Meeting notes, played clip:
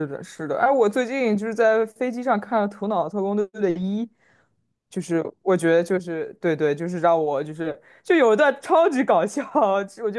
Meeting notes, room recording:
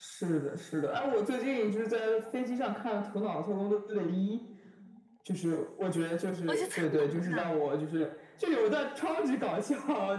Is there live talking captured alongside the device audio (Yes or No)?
Yes